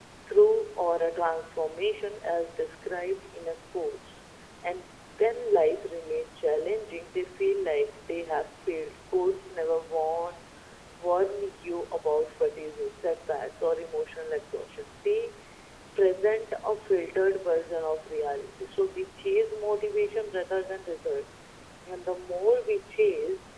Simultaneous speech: No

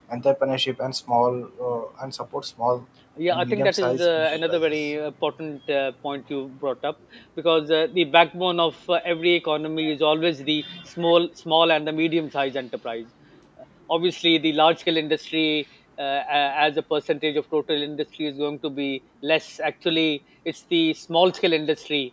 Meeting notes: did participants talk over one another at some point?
Yes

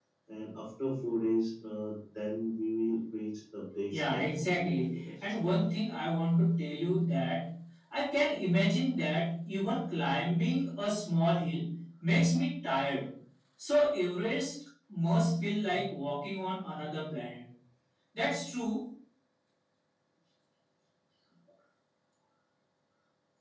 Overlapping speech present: Yes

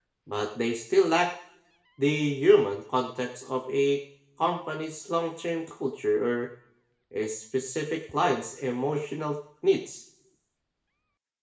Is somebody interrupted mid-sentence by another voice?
No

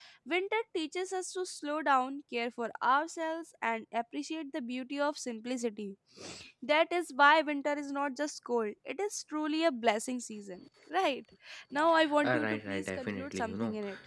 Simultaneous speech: Yes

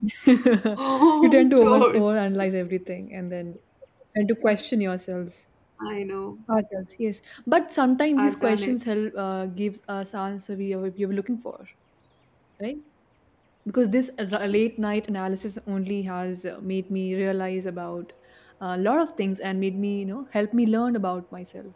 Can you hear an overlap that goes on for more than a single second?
Yes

